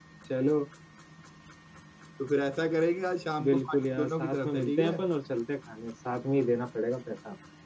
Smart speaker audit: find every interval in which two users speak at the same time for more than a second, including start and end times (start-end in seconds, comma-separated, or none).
3.4-5.0